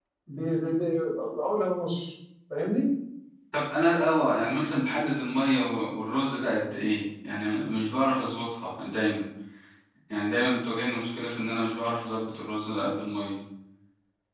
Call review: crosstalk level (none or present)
none